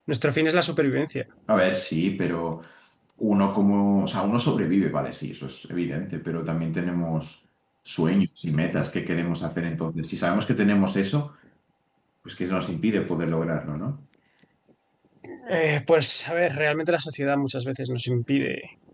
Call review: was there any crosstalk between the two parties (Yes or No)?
No